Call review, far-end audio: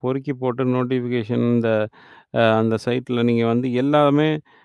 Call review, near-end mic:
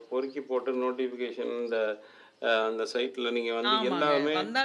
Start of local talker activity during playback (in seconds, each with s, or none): 3.7 s